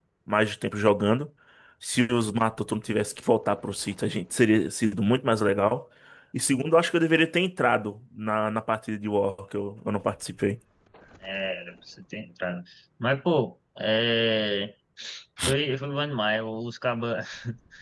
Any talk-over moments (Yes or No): No